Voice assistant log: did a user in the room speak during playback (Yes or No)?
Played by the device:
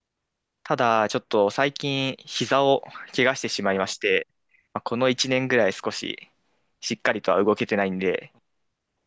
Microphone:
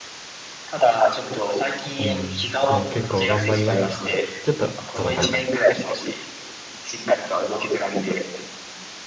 Yes